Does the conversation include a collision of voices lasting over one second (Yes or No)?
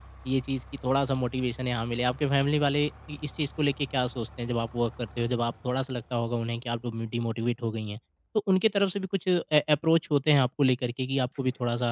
No